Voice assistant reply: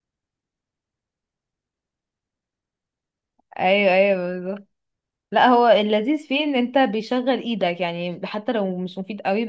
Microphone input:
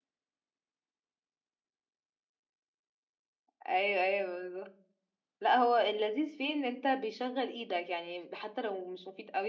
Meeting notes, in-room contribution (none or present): none